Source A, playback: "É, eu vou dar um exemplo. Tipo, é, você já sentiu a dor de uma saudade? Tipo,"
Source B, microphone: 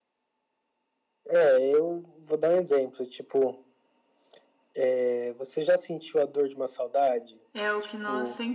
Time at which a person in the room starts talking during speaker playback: 7.5 s

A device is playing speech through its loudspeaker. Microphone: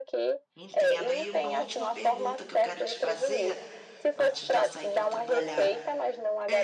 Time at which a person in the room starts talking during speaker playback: 0.5 s

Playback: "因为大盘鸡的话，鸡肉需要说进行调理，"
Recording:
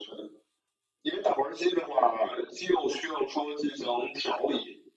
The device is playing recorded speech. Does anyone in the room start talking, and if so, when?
none

